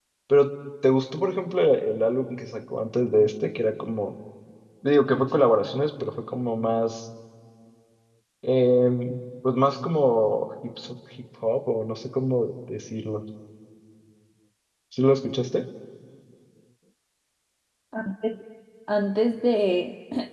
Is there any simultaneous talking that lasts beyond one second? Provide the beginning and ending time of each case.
none

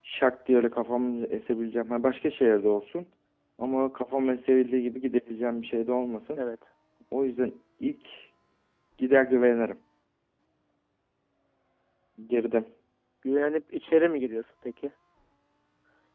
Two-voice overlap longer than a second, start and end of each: none

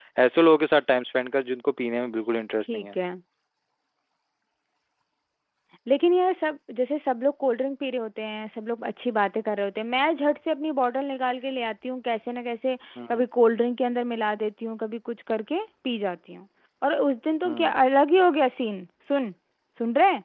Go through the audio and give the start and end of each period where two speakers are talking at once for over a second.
none

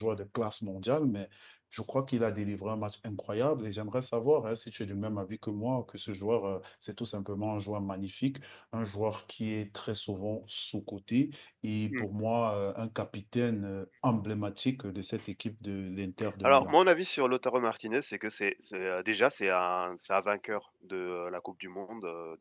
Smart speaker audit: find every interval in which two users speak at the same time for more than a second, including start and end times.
none

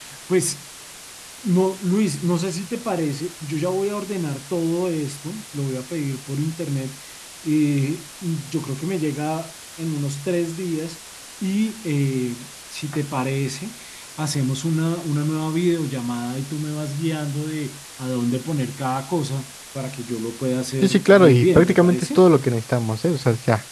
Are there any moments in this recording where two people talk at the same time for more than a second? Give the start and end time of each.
20.8-22.2

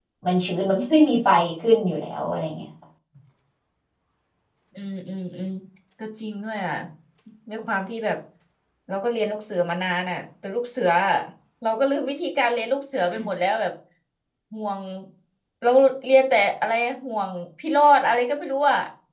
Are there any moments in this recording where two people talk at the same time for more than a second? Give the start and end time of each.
none

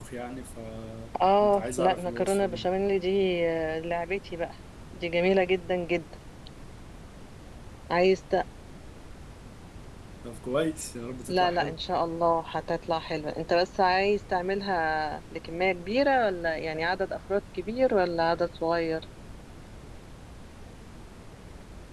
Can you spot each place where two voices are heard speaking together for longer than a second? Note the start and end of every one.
1.4-2.7

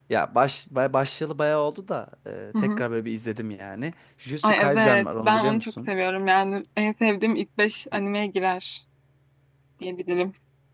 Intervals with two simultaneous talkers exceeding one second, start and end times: 4.4-5.9

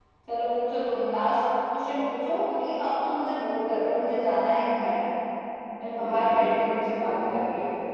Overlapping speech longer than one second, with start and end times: 6.0-7.3

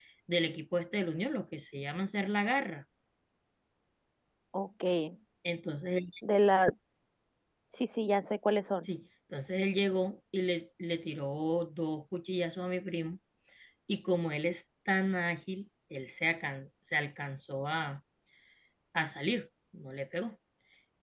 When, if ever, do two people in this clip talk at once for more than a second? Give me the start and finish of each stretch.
none

